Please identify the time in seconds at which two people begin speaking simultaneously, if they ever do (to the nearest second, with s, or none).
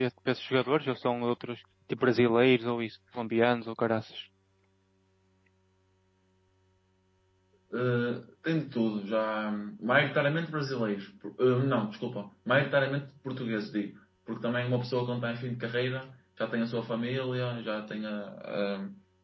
none